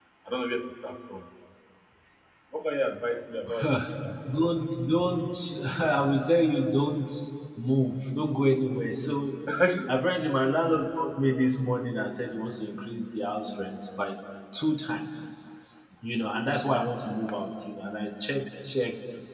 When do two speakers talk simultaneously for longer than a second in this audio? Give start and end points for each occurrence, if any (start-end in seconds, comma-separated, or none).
none